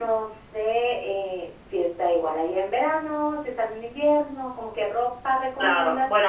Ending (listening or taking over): taking over